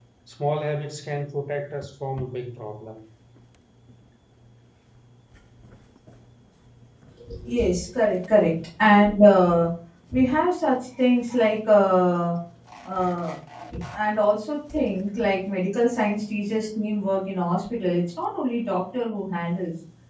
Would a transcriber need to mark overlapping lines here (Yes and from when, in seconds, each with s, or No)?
No